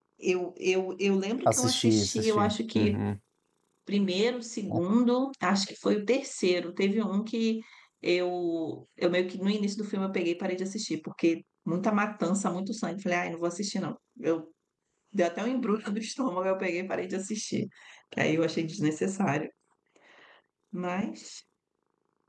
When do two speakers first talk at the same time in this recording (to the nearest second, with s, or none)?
1 s